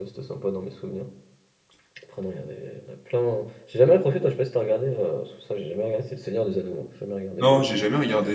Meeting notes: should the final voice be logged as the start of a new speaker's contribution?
Yes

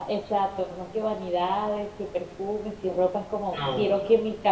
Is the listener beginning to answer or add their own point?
No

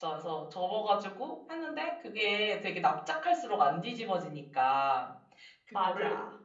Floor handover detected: No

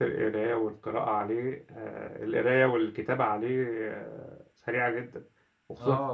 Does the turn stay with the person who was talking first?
No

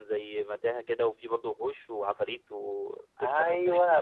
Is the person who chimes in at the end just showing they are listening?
No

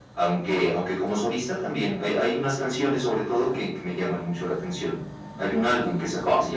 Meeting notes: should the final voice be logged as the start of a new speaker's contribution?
No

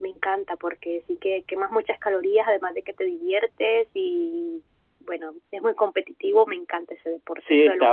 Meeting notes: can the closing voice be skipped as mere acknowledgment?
No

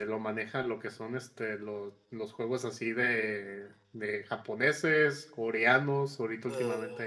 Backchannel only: Yes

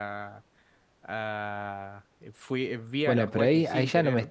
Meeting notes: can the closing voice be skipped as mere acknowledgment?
No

